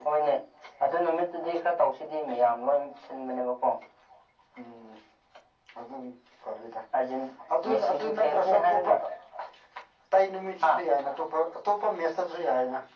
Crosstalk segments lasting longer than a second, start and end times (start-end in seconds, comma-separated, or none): 7.7-8.9